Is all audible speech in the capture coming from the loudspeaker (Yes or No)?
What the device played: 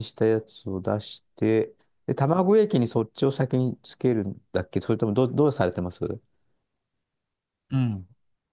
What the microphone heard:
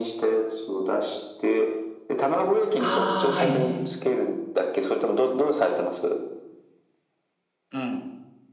No